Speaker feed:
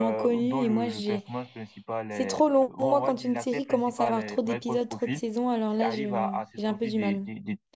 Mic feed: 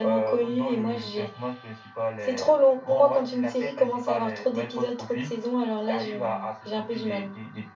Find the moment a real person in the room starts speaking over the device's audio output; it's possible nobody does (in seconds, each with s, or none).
none